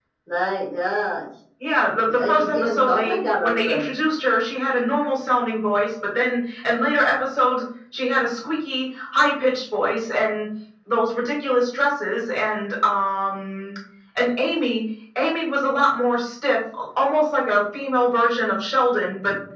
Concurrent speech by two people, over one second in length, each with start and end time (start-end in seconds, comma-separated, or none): 2.1-3.9